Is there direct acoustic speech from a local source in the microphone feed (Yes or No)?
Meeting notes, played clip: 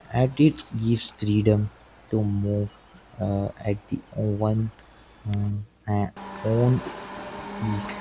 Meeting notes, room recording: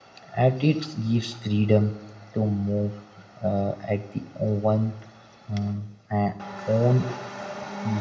No